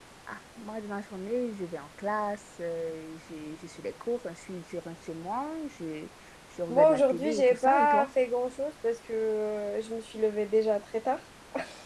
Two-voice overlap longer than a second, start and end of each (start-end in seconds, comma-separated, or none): 6.7-8.1